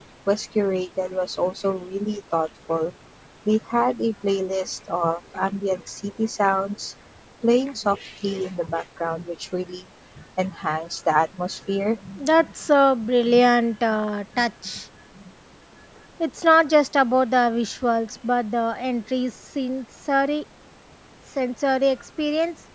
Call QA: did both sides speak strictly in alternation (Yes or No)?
Yes